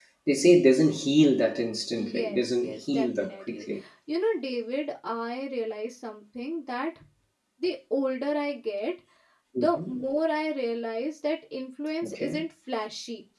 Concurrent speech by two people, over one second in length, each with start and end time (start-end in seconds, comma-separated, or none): 2.0-3.6